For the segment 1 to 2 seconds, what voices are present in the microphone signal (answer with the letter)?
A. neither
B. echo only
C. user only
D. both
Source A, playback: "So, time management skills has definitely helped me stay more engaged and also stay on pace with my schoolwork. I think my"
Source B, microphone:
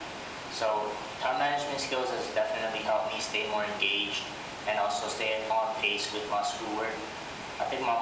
B